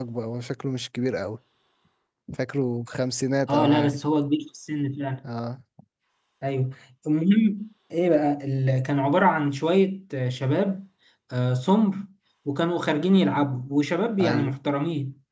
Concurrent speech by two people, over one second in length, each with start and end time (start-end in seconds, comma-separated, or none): none